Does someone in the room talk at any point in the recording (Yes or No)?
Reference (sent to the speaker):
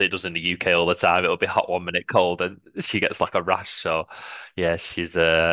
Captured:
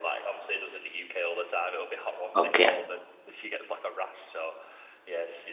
Yes